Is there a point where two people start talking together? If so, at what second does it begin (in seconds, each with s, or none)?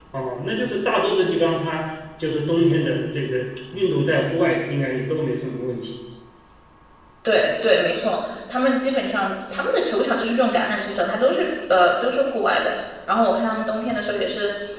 none